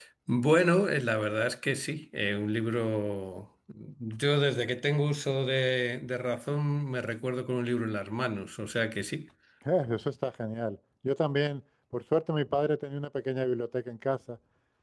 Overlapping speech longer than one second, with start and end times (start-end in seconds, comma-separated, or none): none